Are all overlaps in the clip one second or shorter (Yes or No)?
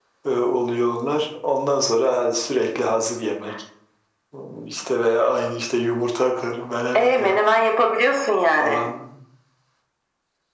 Yes